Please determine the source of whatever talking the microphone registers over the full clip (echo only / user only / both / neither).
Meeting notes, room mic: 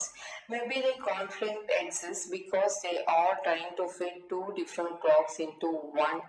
echo only